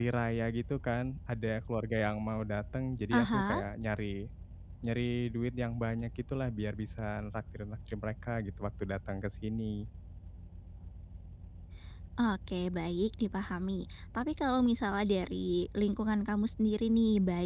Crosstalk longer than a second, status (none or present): none